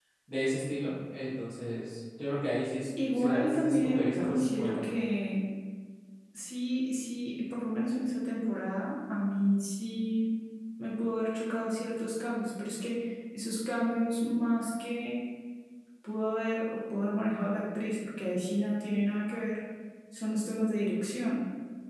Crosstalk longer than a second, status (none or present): present